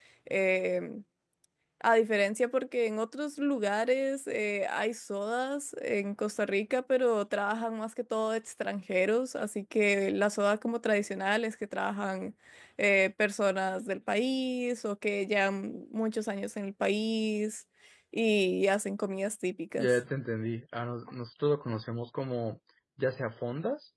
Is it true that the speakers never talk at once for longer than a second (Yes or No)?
Yes